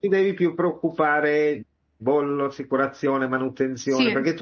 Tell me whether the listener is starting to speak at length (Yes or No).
No